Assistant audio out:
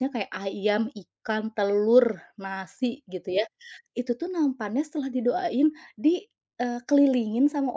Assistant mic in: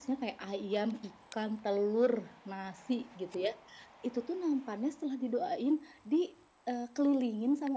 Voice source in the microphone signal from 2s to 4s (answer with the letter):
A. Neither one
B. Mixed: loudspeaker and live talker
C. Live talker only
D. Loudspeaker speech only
D